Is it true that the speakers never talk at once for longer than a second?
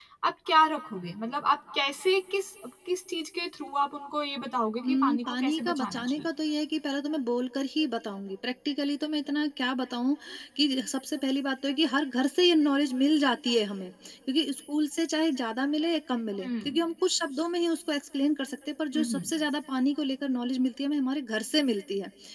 No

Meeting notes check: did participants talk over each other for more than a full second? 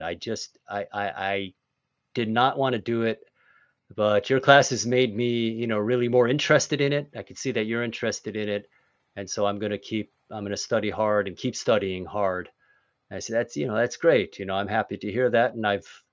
No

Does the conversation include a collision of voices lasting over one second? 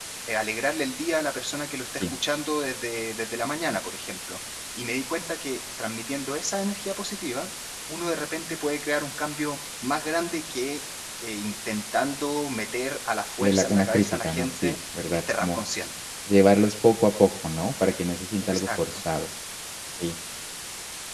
Yes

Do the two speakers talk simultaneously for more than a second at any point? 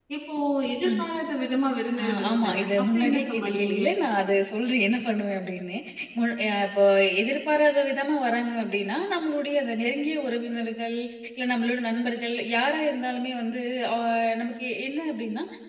Yes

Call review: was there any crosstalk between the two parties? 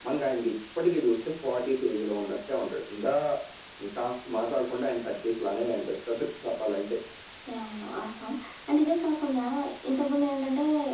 No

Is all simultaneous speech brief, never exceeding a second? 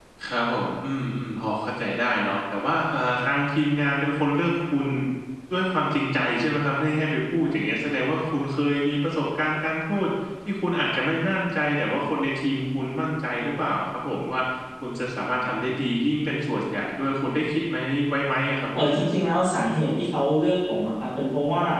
Yes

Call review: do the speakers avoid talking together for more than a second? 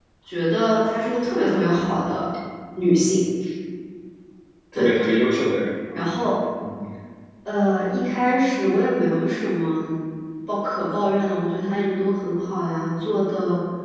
Yes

